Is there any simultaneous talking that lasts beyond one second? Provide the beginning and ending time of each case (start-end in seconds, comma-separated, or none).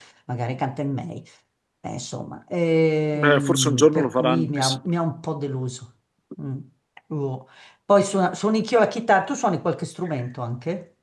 3.1-4.8